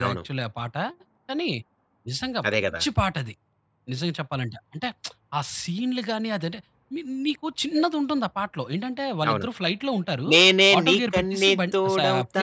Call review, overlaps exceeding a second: present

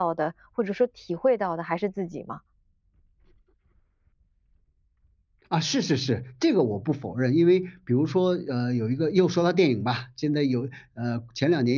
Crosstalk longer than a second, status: none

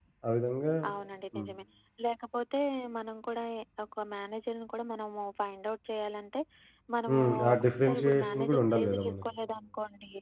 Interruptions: present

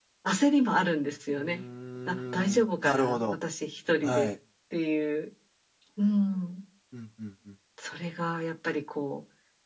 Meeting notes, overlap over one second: present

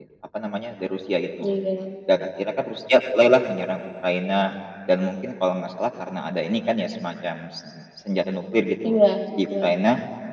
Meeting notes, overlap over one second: none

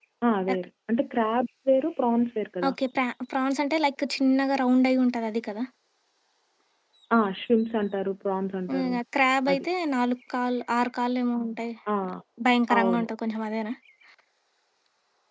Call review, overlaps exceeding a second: none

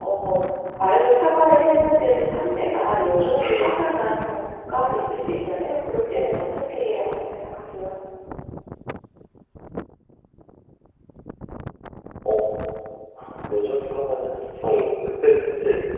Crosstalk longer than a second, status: none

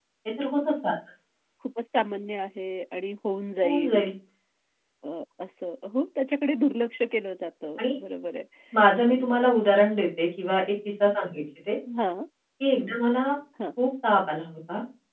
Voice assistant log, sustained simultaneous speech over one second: none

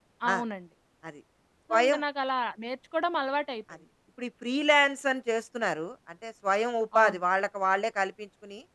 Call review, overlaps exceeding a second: none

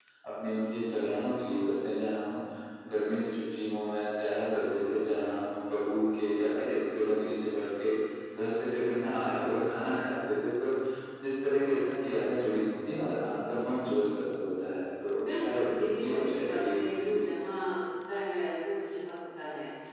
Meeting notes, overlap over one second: present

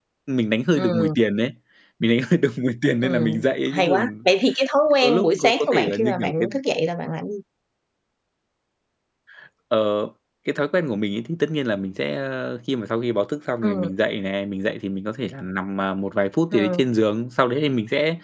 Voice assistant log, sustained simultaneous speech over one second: present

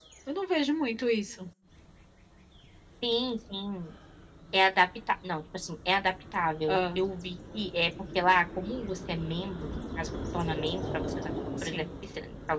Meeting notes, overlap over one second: none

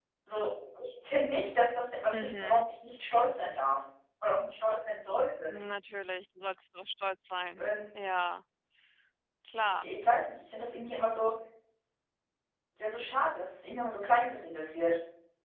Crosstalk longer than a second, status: none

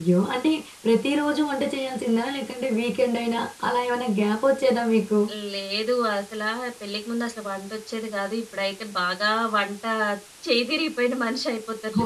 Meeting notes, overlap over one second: none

